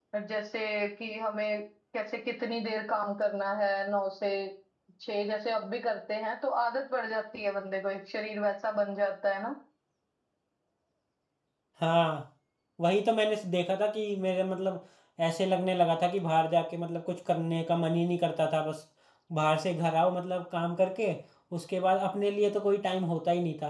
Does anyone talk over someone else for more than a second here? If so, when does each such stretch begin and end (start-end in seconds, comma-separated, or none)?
none